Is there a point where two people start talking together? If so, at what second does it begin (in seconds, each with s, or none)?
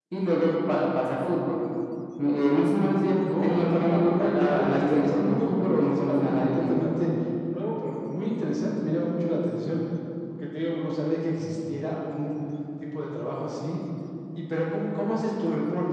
3.2 s